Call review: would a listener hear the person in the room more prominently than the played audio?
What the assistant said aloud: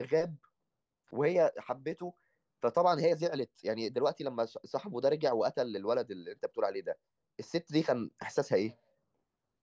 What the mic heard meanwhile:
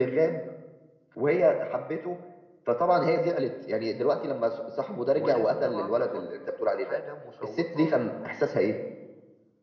No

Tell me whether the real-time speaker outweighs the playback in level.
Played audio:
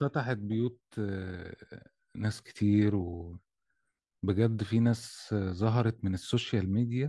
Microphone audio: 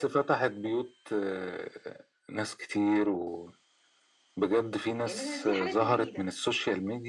No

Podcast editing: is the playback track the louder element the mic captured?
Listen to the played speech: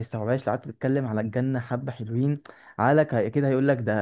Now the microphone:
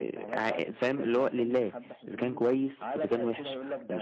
No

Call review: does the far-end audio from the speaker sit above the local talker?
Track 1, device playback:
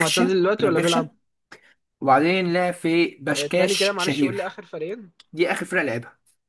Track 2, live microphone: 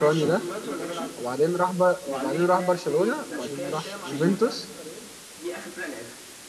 No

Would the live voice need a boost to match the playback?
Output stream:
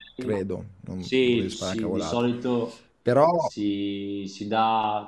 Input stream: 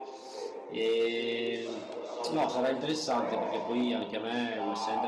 No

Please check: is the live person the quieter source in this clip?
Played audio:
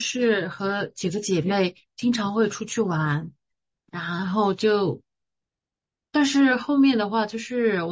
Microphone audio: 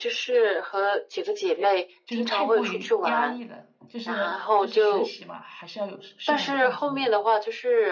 Yes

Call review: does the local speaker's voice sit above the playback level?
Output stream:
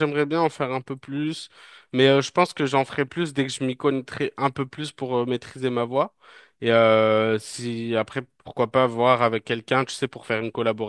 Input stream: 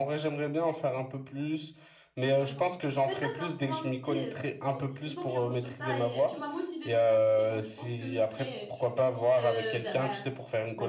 No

